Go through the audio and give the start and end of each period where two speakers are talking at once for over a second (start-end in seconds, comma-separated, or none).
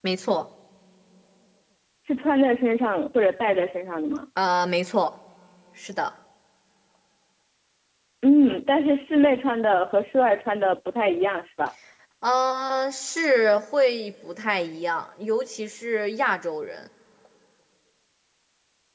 none